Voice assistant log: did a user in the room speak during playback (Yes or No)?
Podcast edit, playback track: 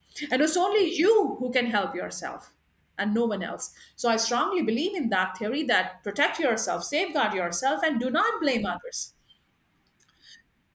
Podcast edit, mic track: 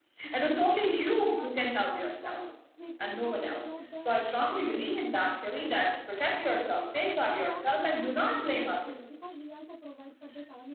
Yes